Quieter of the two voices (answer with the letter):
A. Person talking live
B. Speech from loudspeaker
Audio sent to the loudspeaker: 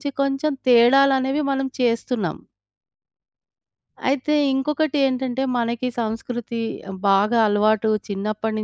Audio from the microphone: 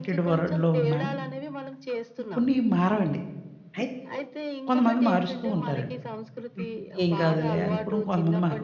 B